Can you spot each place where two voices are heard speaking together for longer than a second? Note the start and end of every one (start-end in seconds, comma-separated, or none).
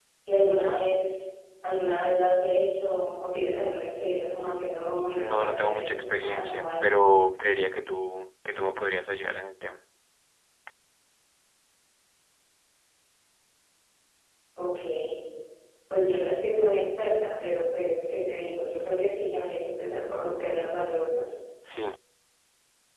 5.2-7.0